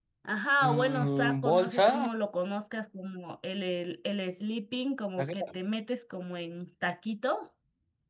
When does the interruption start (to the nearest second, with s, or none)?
1 s